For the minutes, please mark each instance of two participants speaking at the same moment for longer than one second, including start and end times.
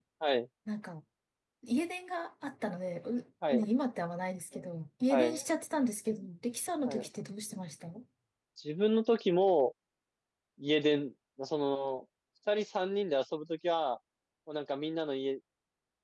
none

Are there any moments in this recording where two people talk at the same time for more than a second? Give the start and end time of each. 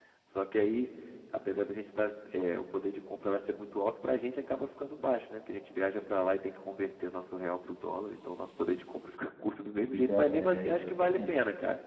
9.9-11.3

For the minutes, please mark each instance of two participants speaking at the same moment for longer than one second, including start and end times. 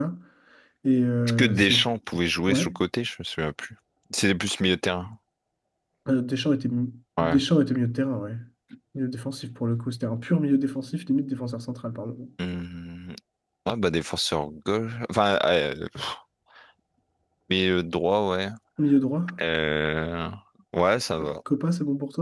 none

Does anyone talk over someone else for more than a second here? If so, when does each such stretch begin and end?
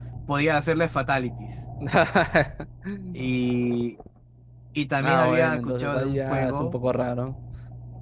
5.0-6.8

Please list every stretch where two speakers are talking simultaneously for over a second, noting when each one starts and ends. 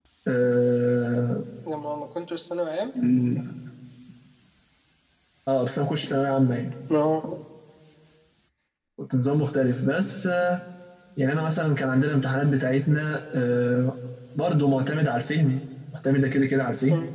none

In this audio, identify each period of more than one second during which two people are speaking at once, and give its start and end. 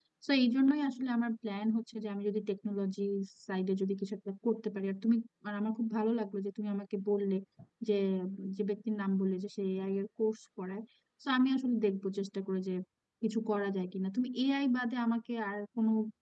none

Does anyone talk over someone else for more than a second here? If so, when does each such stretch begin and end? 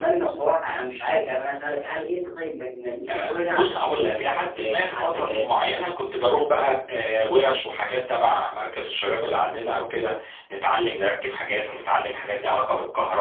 3.1-5.5

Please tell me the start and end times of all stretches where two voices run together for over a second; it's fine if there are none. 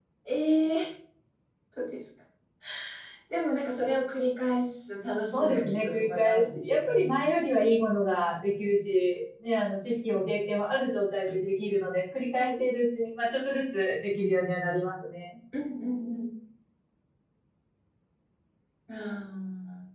5.3-7.2

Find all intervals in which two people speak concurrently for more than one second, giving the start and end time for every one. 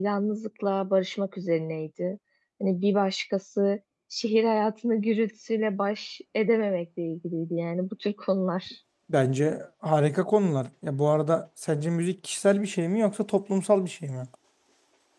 none

